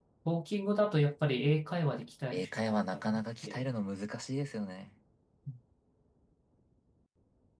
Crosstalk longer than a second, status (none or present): present